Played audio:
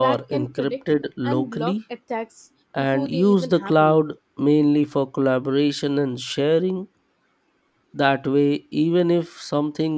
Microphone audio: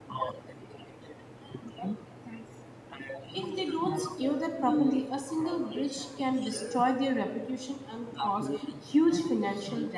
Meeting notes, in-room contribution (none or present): present